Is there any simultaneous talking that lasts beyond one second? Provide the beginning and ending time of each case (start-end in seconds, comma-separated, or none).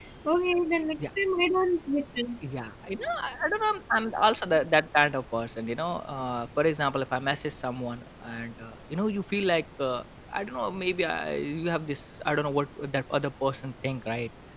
none